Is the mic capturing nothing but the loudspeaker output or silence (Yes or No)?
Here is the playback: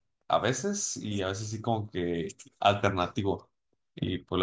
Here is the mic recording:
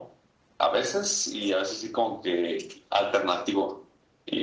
Yes